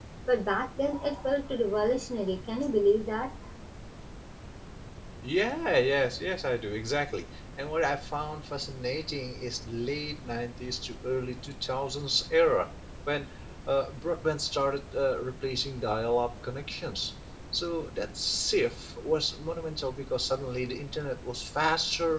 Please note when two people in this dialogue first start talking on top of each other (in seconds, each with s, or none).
none